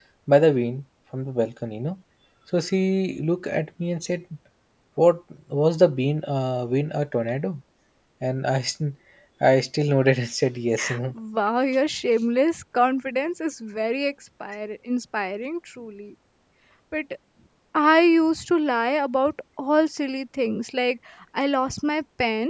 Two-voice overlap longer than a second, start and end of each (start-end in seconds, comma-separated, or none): none